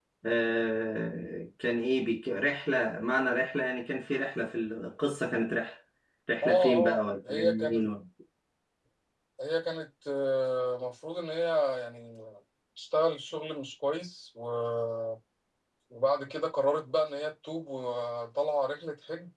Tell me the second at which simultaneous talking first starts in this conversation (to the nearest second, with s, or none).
6 s